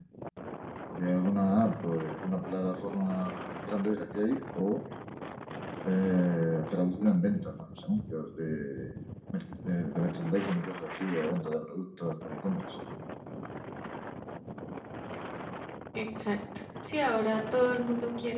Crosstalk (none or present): none